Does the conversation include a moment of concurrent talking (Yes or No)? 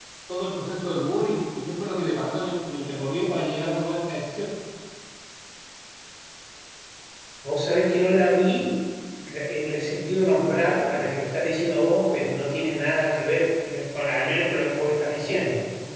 No